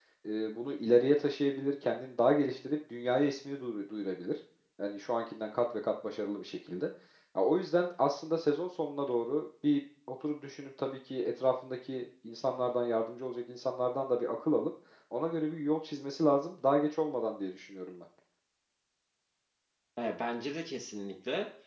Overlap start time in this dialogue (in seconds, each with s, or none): none